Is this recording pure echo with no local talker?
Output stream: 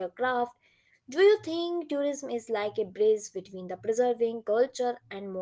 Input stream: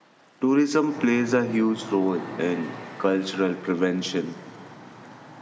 No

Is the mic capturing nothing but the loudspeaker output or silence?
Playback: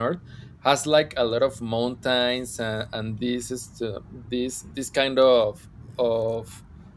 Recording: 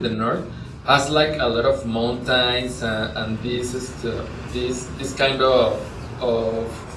Yes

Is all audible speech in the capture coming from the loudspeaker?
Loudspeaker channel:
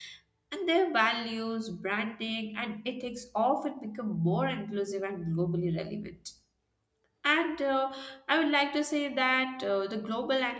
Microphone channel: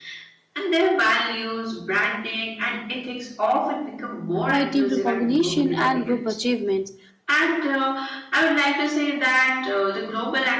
No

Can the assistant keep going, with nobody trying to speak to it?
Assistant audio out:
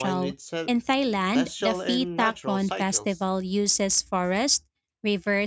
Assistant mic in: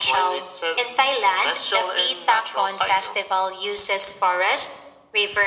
Yes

